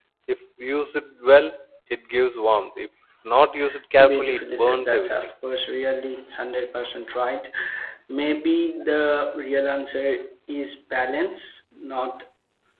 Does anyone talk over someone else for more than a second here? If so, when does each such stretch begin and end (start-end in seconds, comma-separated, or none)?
4.0-5.3